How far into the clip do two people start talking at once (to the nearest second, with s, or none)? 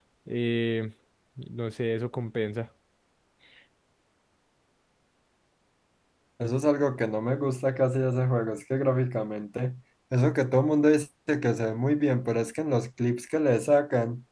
none